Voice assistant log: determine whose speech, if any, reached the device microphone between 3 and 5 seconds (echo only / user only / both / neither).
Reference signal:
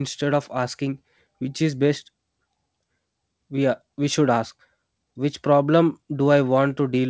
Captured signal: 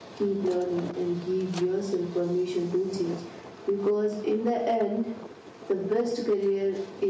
user only